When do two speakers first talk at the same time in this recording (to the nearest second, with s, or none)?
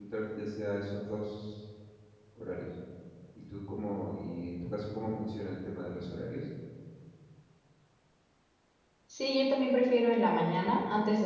none